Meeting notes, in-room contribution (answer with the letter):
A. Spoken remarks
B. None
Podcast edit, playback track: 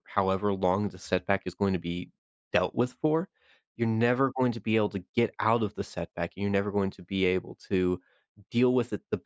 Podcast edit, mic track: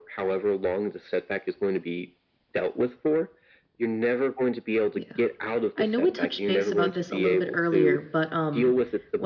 A